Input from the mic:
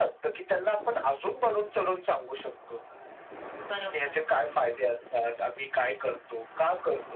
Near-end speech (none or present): present